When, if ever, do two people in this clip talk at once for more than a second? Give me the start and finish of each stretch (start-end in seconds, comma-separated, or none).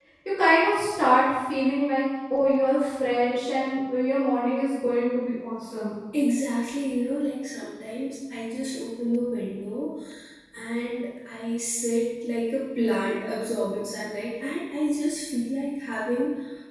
none